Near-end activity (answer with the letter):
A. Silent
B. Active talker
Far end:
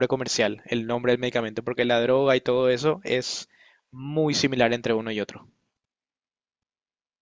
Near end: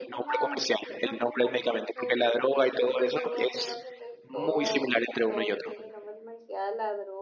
B